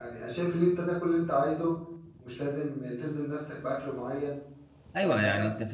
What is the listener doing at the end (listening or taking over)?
taking over